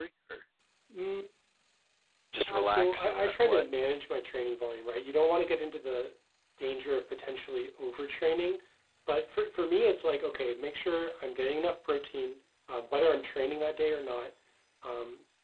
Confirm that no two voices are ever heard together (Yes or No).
No